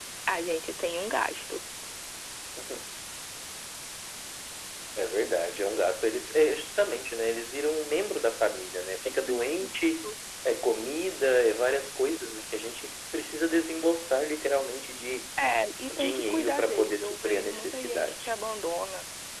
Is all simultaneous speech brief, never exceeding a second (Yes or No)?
No